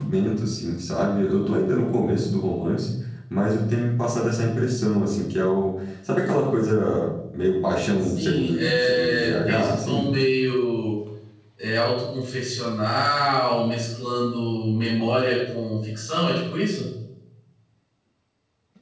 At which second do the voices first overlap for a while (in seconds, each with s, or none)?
8.0 s